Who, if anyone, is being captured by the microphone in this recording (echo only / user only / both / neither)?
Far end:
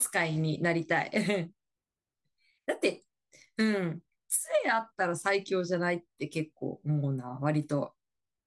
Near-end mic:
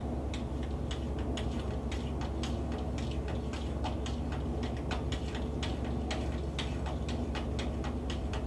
neither